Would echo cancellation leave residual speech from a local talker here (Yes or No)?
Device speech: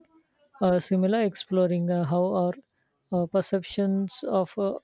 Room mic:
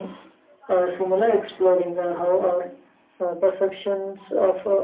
No